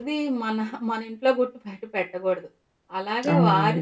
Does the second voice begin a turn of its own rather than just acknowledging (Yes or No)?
No